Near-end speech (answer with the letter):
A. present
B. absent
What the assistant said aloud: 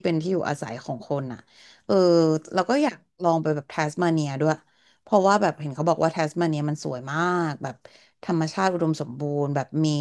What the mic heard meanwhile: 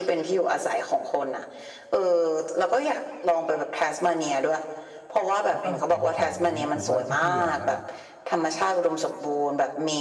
A